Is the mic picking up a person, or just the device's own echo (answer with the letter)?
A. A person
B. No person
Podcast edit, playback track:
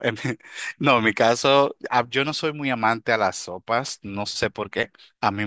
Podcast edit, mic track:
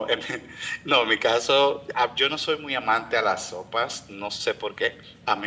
B